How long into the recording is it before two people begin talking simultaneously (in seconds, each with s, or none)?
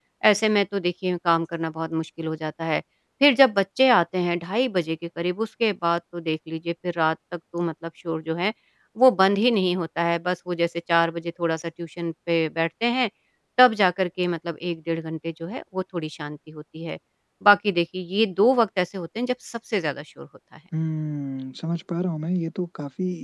none